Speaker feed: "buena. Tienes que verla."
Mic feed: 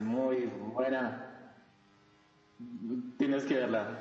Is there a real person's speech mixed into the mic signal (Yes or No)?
No